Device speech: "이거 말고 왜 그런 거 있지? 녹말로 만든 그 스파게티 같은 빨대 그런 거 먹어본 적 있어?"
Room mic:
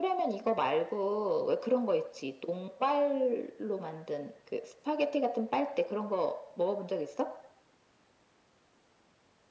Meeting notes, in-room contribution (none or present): none